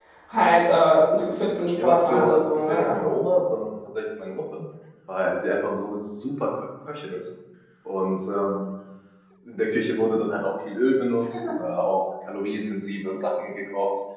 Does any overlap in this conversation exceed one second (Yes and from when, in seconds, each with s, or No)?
Yes, from 1.7 s